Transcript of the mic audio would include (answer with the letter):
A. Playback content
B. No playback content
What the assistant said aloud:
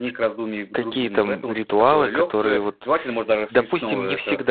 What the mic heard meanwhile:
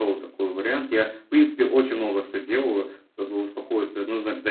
B